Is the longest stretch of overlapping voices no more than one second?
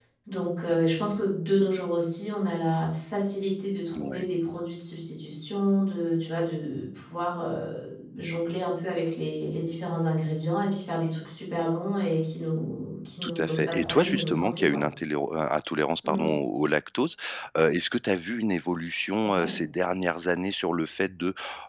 No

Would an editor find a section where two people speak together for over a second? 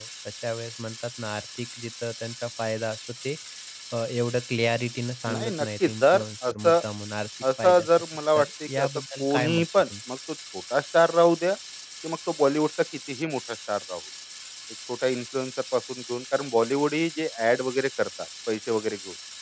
Yes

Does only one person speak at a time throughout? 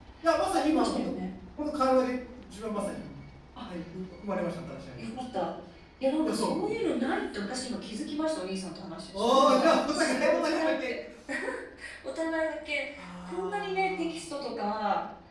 No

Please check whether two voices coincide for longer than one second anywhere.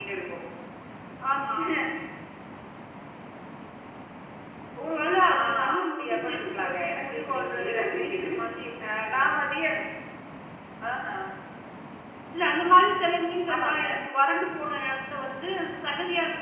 Yes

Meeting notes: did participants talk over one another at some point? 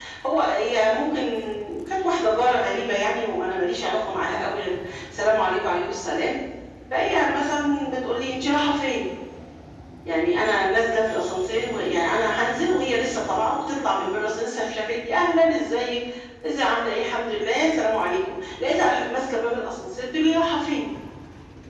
No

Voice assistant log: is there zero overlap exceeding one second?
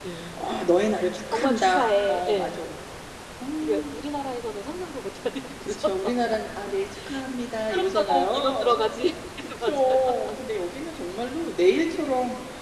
No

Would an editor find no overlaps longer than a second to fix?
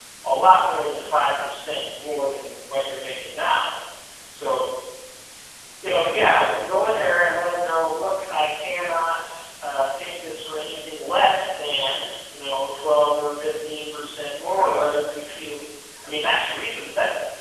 No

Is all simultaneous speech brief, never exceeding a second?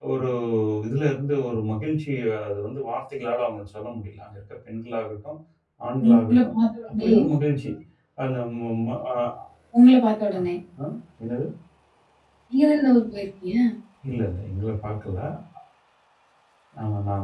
Yes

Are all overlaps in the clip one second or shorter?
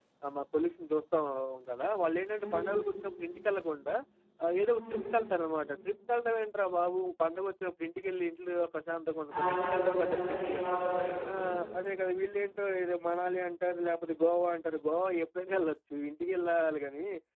No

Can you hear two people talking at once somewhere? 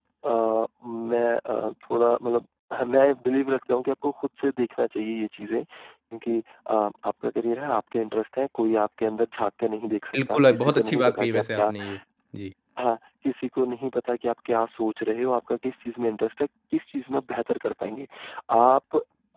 Yes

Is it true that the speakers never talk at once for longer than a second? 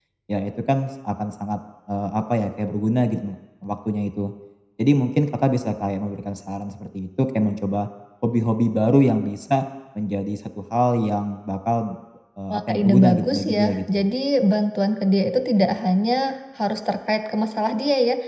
No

